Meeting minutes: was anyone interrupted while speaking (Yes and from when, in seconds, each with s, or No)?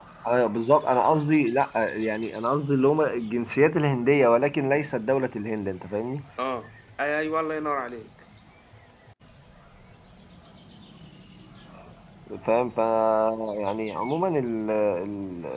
No